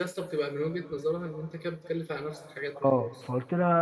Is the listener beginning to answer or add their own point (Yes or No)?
Yes